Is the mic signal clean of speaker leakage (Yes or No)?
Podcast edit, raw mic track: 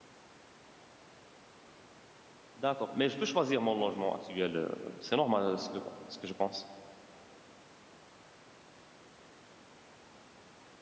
Yes